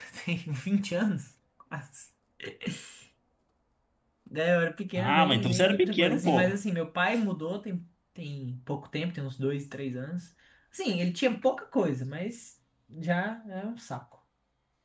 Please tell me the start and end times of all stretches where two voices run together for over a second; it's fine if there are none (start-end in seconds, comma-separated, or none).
5.0-6.6